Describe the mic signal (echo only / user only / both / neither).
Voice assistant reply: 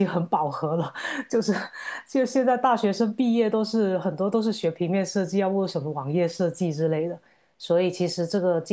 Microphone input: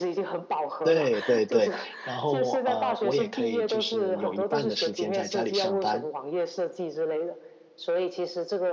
both